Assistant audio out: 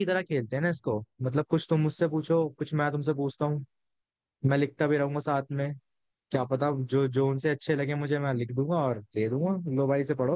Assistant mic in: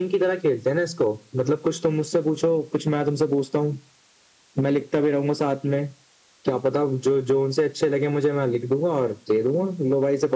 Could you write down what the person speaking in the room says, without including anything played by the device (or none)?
none